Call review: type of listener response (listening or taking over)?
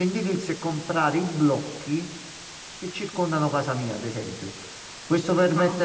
listening